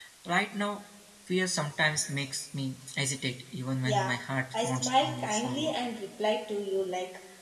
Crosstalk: present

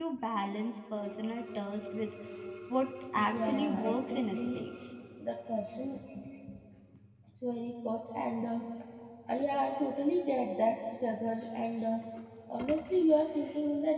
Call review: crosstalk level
present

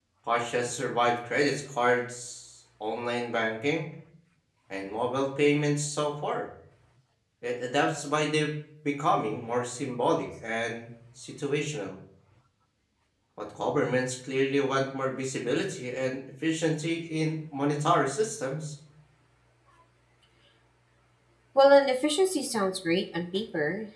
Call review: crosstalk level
none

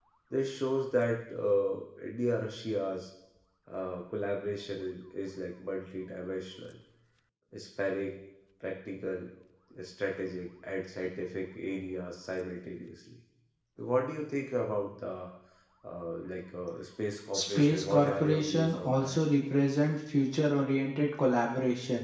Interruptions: present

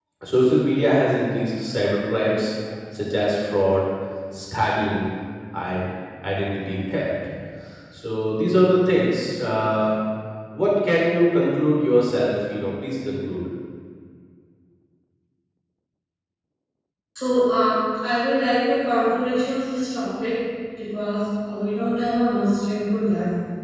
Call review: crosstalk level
none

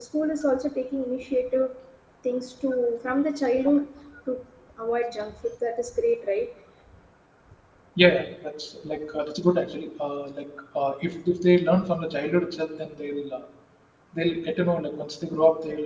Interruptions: none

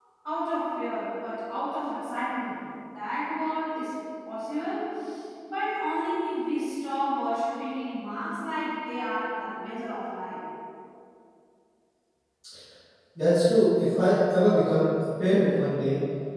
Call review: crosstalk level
none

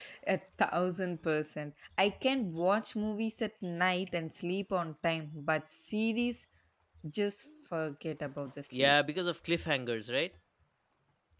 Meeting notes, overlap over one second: none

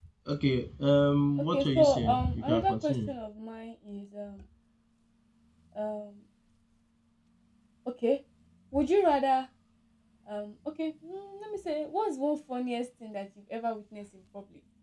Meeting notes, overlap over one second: present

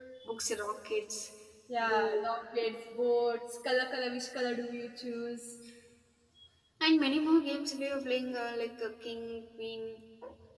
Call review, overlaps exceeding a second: none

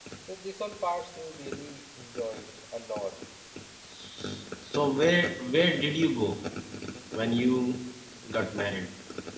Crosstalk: none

